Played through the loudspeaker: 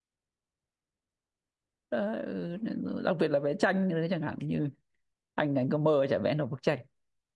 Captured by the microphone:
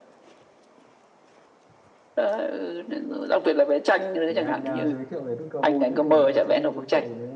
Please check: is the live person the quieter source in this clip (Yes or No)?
Yes